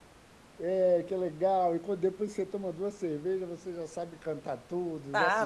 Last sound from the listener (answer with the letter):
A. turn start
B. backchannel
A